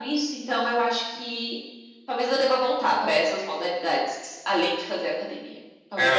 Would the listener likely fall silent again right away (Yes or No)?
No